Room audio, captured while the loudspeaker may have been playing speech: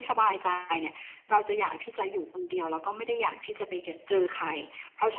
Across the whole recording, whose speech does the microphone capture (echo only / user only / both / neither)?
echo only